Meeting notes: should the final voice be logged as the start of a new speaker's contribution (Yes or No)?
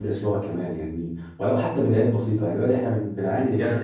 Yes